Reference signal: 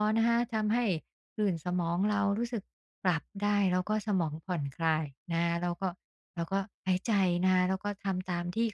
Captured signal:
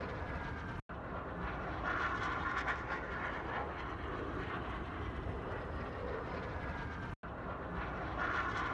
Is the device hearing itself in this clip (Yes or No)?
No